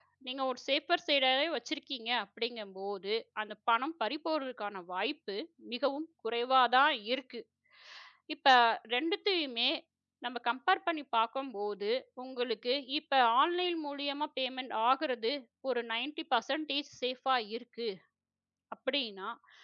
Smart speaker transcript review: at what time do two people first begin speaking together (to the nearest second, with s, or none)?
none